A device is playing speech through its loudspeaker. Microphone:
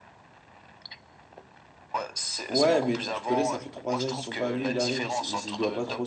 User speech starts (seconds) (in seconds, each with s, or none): 2.5 s